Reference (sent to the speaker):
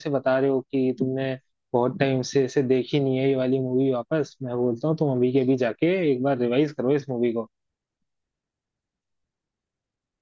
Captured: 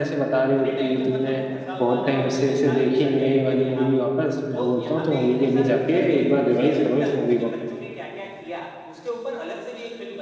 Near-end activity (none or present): present